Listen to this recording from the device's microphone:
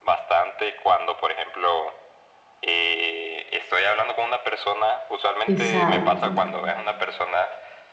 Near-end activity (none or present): present